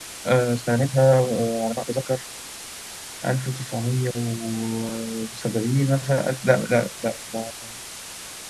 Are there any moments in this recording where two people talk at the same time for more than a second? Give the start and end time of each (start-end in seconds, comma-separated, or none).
none